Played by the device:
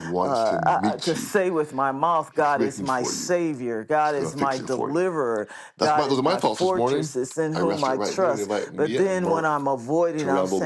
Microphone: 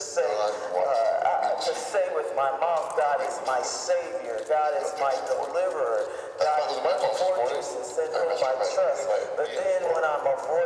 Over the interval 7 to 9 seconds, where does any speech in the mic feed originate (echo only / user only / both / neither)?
echo only